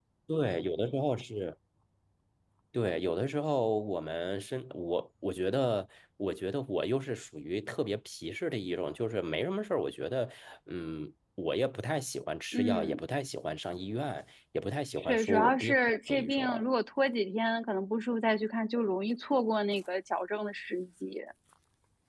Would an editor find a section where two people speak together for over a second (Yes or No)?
Yes